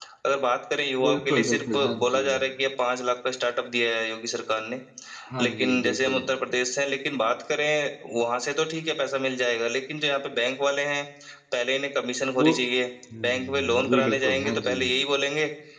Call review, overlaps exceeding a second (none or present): present